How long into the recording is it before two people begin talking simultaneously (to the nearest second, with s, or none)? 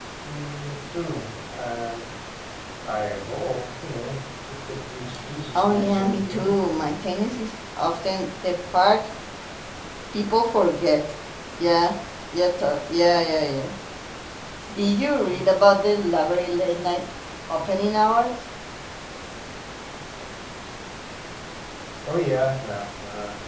6 s